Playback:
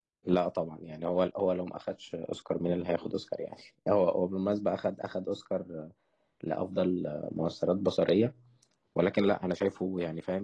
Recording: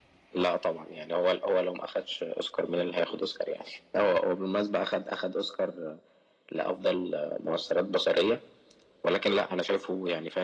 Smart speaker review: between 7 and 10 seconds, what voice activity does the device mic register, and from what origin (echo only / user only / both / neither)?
echo only